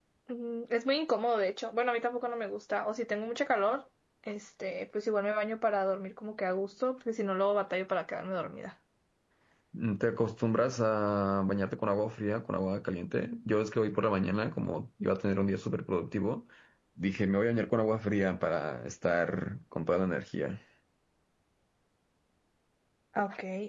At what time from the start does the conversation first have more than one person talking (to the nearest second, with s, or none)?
none